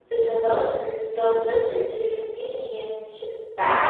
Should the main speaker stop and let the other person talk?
Yes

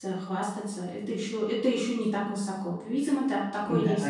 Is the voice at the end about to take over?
Yes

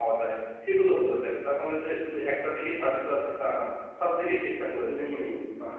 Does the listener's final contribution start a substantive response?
Yes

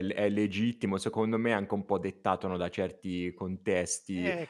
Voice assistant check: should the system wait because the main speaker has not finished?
Yes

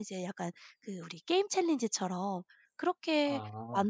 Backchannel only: Yes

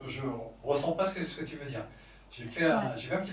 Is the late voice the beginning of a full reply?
No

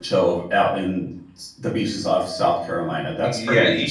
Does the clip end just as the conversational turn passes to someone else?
Yes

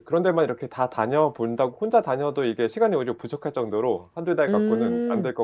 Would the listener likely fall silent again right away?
No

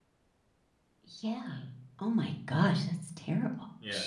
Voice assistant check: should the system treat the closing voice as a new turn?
Yes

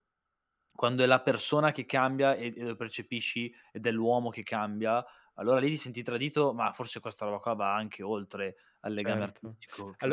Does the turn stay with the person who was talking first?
No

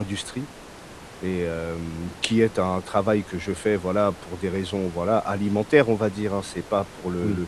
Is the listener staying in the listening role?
Yes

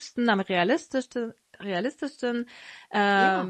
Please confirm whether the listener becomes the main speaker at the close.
No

